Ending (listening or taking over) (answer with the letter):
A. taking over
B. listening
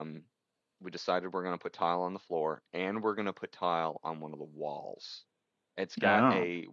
B